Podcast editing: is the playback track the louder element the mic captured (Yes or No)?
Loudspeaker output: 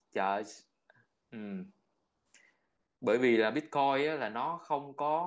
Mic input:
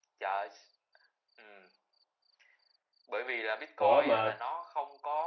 No